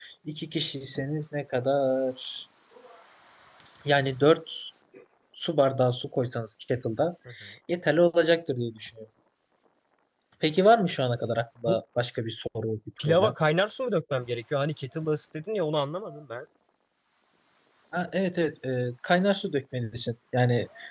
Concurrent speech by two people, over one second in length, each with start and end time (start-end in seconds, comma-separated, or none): none